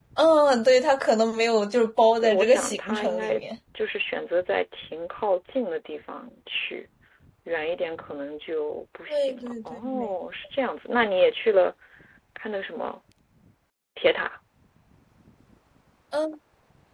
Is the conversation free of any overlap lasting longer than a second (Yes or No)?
No